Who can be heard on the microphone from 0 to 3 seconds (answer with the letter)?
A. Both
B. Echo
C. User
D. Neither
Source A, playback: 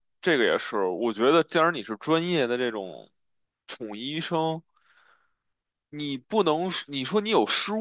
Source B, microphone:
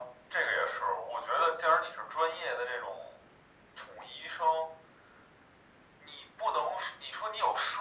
B